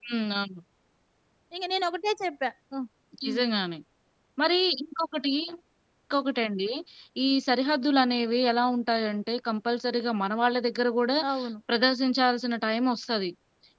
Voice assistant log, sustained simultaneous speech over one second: none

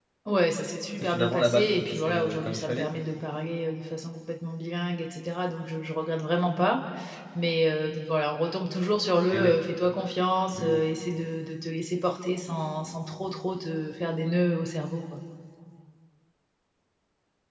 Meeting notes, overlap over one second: present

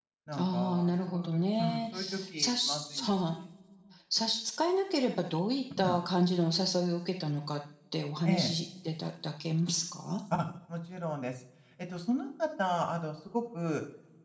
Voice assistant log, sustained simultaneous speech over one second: present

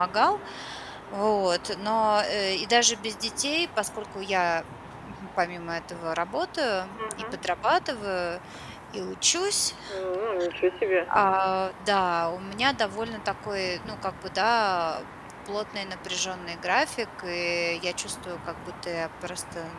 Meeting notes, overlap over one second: none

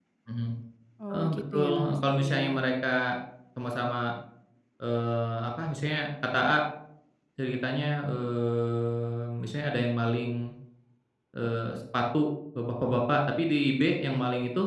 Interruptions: present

